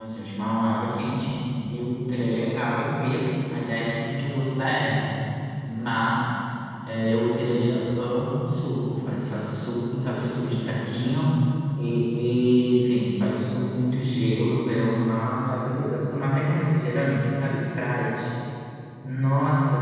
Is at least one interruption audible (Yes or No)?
No